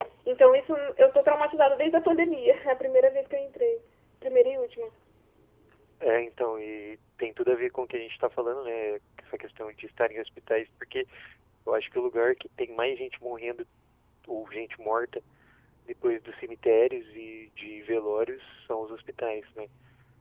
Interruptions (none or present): none